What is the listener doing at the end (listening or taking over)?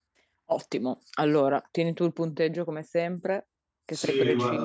taking over